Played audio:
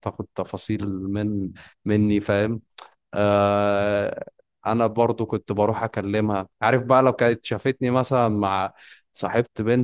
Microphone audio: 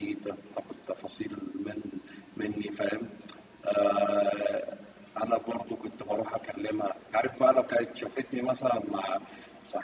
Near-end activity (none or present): none